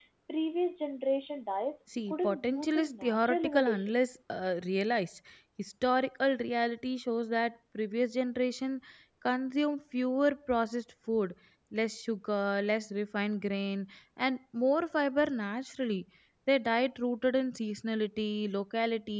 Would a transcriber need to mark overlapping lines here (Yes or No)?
Yes